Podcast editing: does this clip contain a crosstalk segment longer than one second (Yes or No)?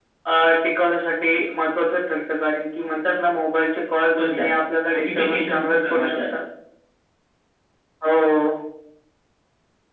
Yes